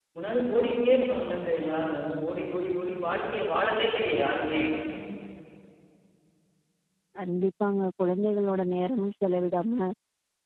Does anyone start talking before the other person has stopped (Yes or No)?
No